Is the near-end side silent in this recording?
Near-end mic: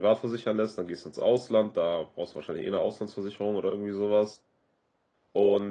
No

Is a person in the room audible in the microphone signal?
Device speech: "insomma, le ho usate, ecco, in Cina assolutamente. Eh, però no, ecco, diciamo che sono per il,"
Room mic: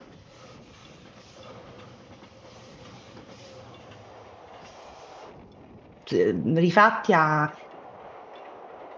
Yes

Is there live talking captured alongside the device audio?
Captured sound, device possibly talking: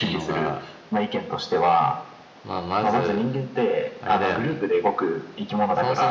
No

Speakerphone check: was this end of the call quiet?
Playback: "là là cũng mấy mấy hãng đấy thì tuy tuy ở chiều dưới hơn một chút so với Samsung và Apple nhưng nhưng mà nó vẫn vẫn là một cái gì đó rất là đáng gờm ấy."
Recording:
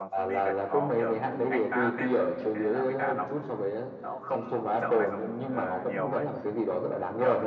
No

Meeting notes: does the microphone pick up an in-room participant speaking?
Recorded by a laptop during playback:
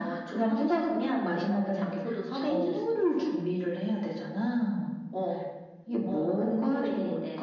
Yes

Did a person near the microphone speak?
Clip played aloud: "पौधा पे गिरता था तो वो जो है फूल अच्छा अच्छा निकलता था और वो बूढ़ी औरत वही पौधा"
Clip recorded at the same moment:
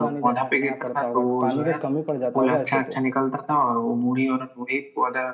Yes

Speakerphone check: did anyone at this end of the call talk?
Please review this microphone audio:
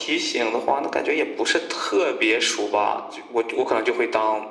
No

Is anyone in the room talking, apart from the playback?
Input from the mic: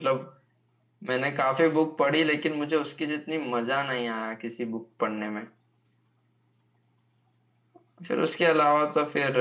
Yes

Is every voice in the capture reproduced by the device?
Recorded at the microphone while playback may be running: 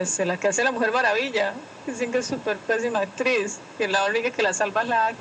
Yes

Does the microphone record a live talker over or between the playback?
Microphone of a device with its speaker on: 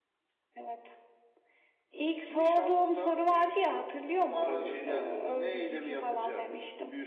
Yes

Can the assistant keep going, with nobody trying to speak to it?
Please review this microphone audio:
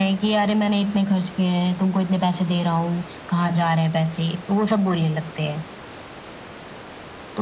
Yes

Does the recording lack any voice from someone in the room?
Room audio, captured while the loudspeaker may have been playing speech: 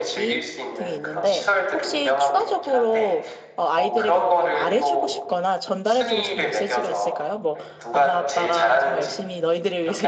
No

